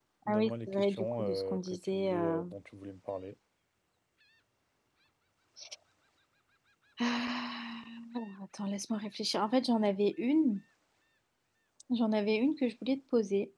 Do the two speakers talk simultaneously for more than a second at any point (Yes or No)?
Yes